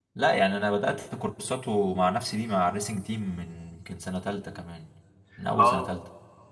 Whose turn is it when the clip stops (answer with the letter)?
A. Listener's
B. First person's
A